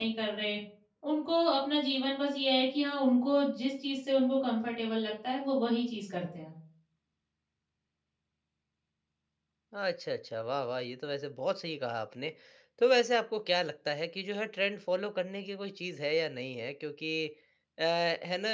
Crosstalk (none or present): none